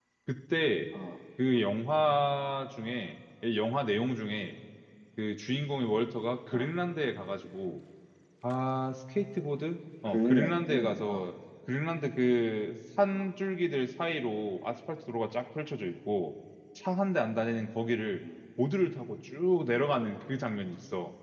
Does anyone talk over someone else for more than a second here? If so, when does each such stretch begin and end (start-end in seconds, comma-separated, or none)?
10.1-11.3